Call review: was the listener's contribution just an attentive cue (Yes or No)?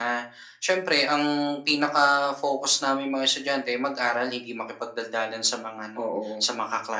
Yes